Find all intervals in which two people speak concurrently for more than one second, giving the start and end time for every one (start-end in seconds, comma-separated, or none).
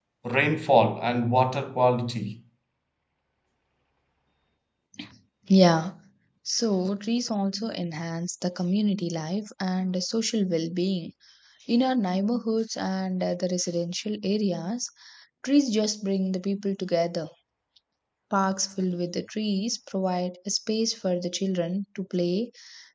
none